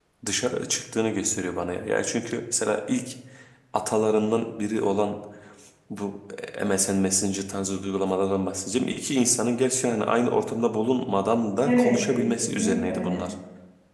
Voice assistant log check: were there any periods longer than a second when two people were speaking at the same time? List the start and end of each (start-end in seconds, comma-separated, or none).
11.6-13.2